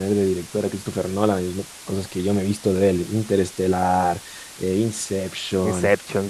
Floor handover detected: No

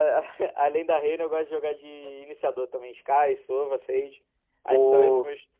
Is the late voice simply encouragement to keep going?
No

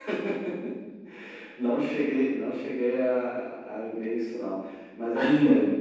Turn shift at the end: No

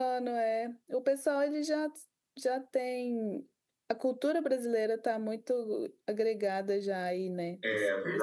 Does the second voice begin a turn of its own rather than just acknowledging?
Yes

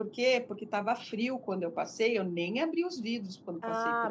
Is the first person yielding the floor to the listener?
Yes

